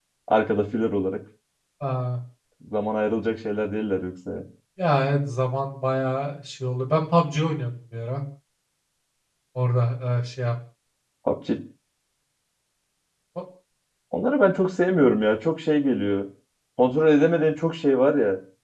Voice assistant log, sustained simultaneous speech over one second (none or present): none